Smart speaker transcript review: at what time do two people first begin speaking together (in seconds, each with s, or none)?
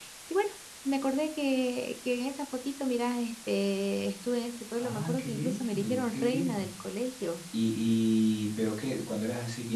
4.8 s